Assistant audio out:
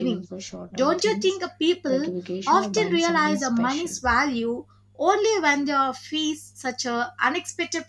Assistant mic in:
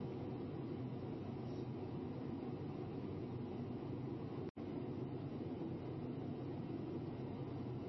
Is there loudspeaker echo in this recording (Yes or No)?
No